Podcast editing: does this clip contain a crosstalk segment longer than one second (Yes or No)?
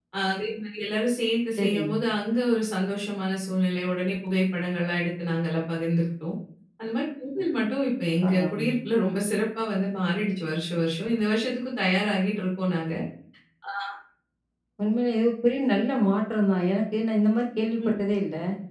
No